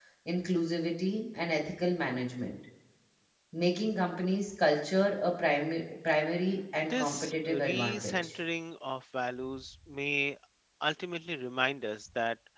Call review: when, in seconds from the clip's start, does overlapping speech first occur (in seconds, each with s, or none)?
6.9 s